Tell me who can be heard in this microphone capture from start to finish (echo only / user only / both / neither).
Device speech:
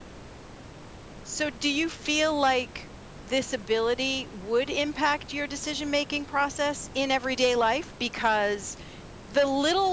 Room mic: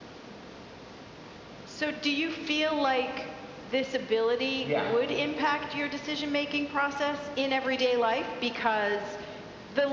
both